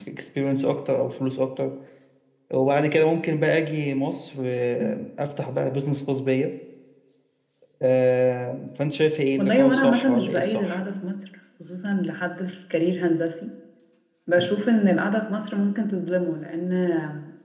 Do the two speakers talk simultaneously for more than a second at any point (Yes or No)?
Yes